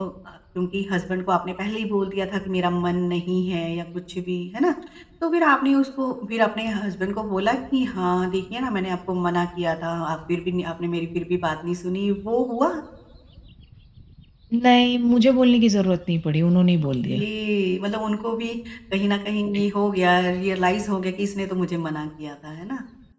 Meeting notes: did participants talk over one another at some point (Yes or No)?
No